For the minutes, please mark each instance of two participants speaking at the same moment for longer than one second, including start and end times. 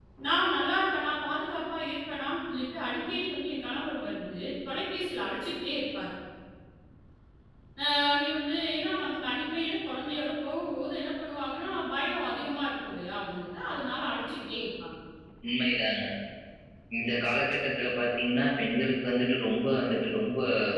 none

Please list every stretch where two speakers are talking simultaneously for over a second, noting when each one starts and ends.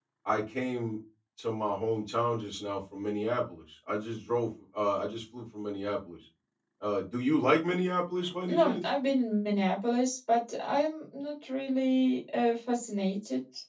none

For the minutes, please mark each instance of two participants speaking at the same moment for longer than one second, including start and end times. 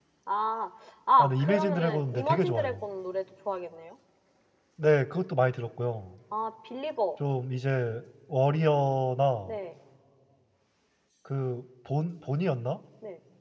1.2-2.8

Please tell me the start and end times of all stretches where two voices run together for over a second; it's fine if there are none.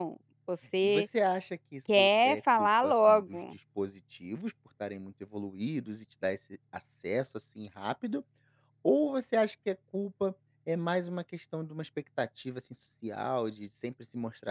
2.0-3.4

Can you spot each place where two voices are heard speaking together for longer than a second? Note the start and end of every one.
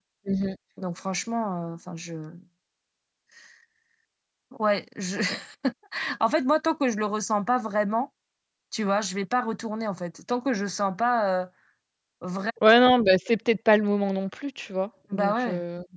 none

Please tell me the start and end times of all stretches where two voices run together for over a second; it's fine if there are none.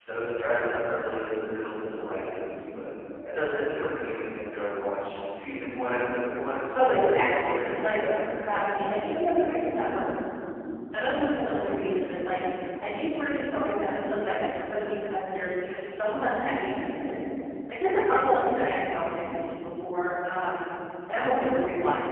6.7-8.0

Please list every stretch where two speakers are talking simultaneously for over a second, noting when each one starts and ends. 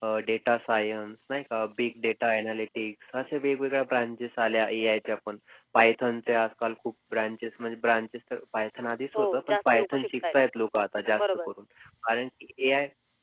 9.2-10.4

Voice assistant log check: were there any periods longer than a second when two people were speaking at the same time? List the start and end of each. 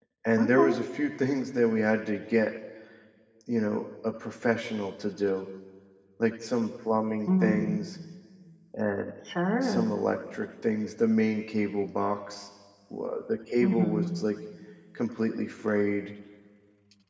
none

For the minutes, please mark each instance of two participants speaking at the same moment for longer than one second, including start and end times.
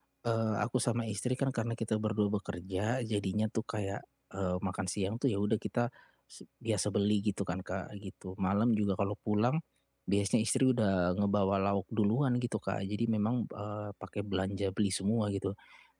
none

